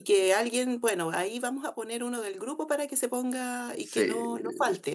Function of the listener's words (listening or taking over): listening